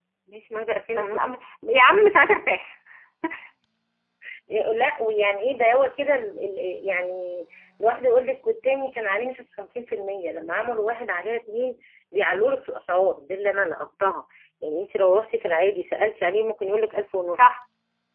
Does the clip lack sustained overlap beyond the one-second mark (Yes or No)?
Yes